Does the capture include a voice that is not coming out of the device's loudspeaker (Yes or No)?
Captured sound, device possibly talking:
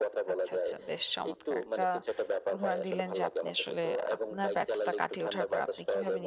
Yes